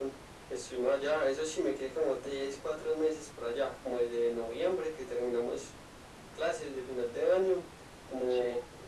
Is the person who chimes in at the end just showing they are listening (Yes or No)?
Yes